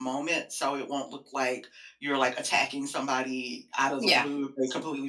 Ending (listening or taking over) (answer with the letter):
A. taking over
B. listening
B